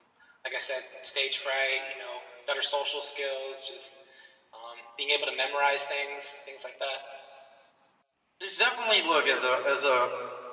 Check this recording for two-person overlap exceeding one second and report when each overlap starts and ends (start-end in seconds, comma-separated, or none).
none